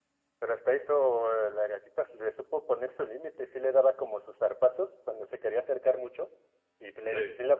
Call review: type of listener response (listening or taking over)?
listening